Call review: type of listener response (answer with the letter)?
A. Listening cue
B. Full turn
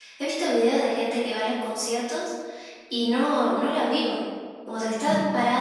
A